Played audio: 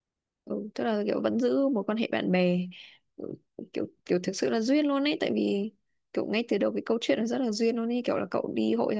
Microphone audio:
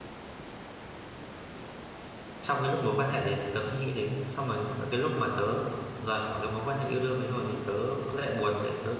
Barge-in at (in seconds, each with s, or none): 2.4 s